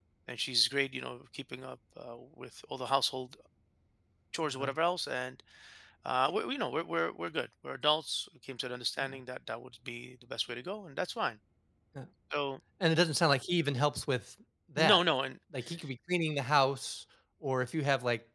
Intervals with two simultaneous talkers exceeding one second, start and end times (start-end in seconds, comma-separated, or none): none